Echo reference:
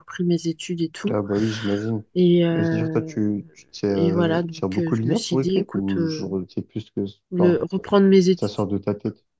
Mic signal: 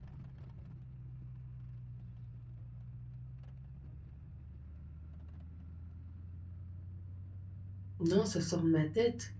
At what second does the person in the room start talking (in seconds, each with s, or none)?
8.0 s